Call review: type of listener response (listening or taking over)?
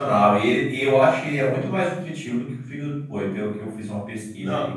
taking over